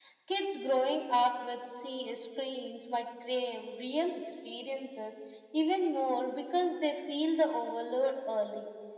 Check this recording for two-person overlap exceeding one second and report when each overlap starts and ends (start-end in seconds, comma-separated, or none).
none